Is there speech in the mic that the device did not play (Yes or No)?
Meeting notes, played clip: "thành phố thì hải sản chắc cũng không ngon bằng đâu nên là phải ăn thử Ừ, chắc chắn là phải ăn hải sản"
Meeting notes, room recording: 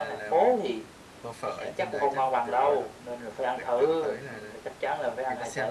Yes